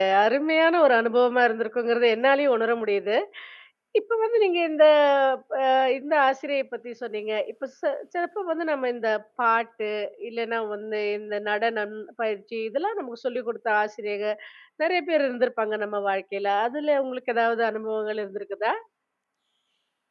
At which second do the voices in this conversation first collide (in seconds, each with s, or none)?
none